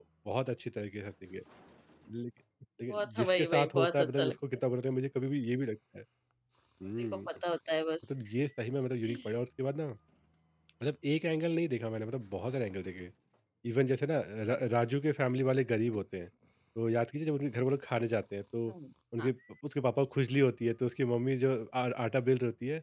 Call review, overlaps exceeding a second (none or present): present